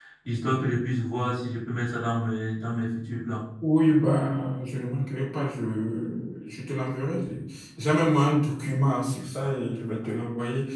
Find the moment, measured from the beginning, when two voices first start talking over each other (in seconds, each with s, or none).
none